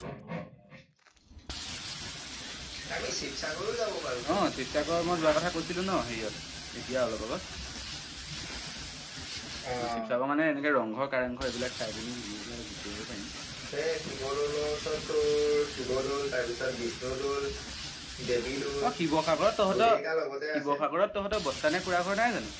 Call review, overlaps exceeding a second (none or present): none